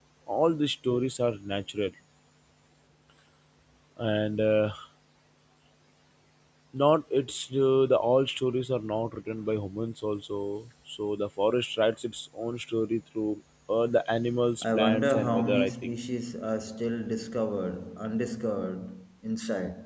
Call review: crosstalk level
present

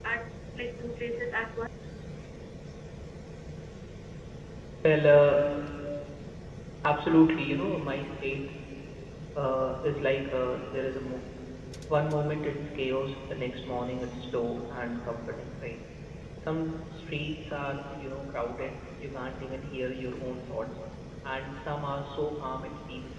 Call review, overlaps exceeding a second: none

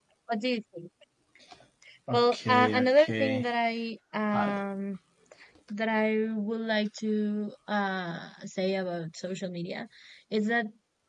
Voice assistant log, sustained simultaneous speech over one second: present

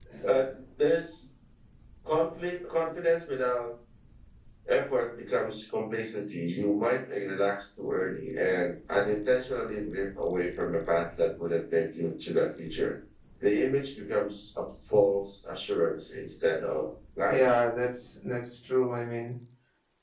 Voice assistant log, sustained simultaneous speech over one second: none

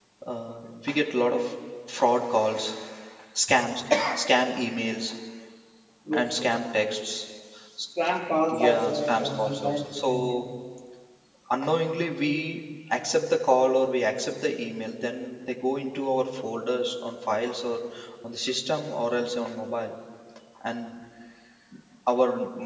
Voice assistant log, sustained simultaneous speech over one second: present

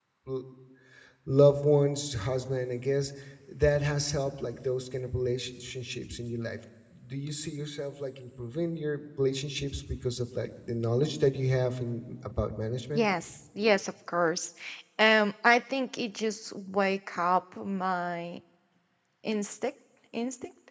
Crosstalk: none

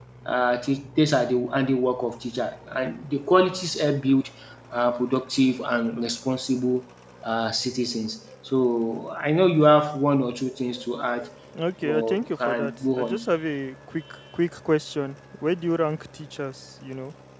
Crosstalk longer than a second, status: present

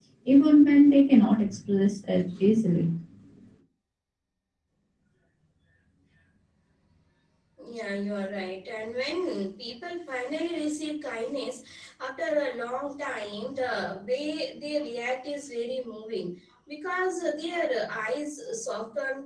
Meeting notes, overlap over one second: none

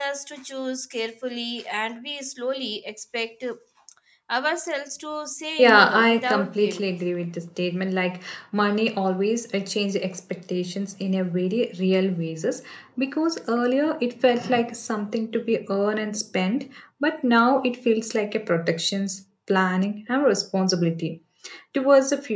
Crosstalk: present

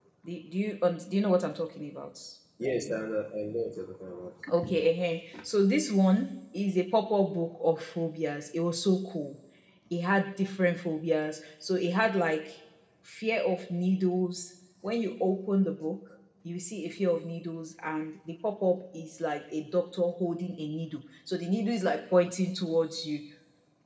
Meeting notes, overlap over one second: none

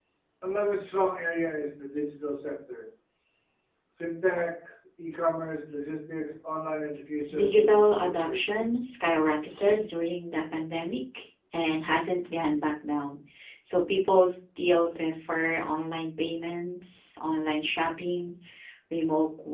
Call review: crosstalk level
present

